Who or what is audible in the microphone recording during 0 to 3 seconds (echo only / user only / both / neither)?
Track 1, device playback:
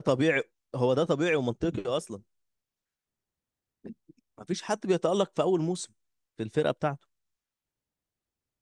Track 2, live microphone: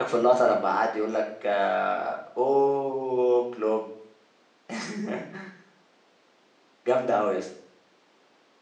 user only